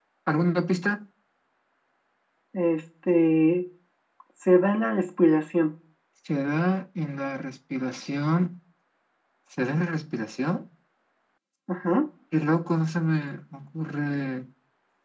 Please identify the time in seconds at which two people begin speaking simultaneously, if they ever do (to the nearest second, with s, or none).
none